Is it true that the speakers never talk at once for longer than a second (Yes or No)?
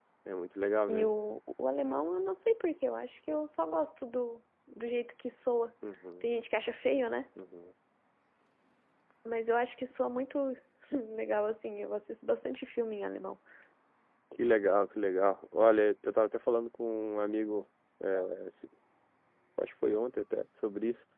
Yes